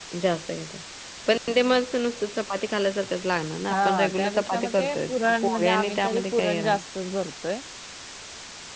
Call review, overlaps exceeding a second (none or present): present